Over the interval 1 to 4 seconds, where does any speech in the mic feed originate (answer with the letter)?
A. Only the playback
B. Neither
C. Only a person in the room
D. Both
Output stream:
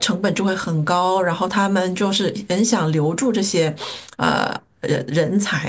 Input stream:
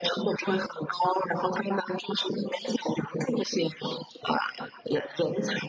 A